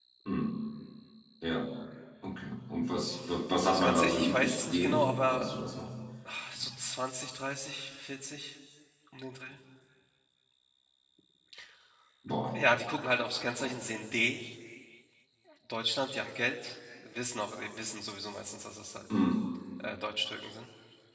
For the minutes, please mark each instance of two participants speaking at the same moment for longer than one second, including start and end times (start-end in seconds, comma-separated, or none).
3.7-5.5